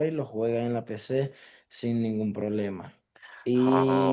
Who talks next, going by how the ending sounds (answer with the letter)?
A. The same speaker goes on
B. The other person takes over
A